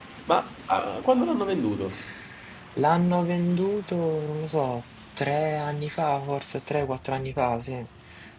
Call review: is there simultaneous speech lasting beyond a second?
No

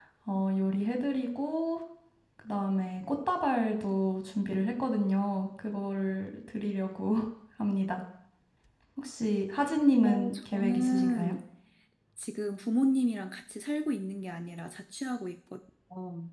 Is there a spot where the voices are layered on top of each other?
Yes, from 10.0 s

